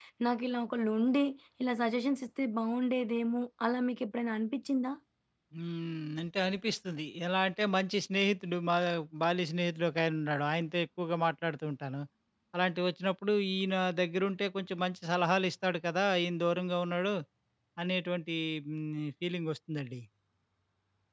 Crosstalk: none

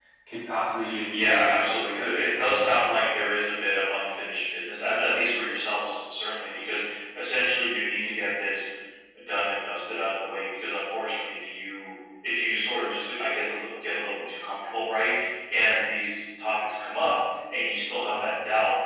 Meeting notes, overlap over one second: present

